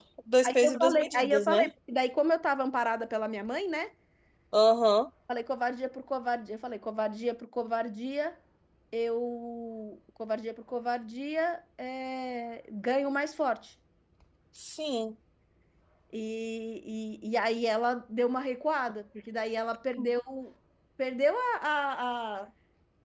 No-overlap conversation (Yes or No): No